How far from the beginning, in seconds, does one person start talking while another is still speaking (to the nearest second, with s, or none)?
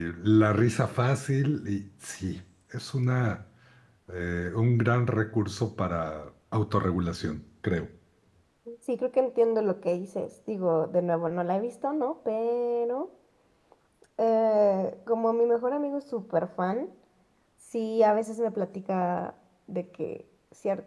none